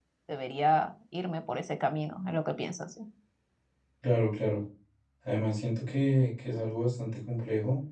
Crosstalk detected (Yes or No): No